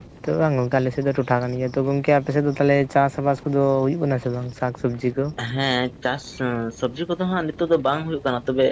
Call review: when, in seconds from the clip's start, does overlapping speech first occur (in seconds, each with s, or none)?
none